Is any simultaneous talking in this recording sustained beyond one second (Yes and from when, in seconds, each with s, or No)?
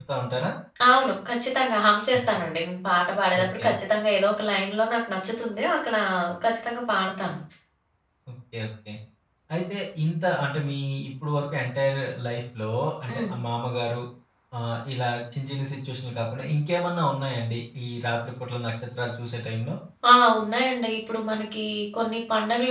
No